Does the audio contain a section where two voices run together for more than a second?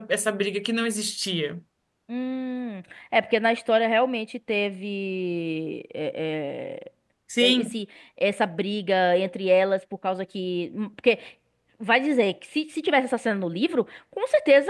No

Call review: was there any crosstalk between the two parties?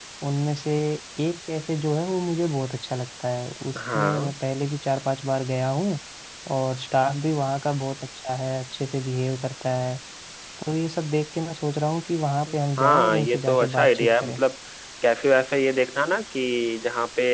Yes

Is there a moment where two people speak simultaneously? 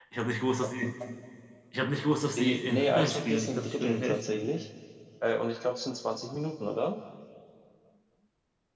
Yes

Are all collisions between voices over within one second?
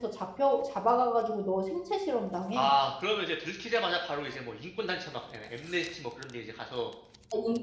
Yes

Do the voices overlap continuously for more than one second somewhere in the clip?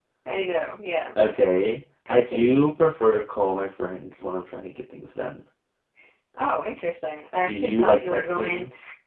Yes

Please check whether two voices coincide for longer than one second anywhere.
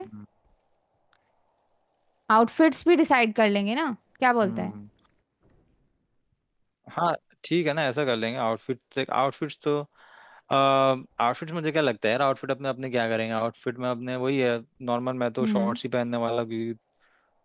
No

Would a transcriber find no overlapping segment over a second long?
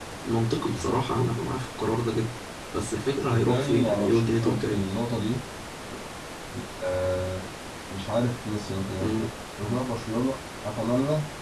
No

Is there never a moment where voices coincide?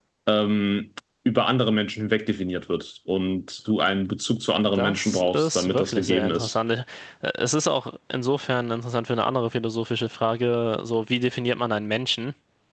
No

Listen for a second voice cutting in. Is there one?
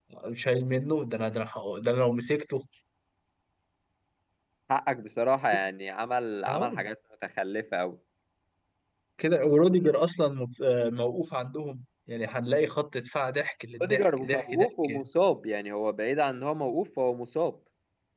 Yes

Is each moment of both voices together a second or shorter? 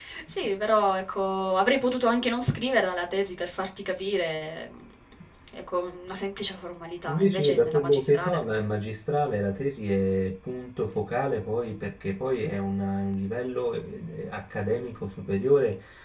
No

